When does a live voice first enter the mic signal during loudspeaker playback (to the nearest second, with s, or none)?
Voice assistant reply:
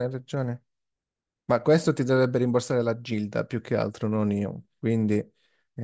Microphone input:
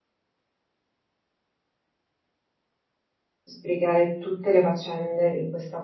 3 s